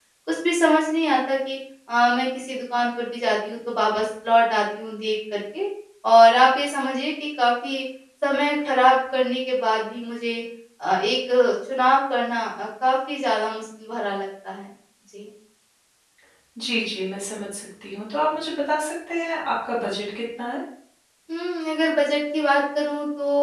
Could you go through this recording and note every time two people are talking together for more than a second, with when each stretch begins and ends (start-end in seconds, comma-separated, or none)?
none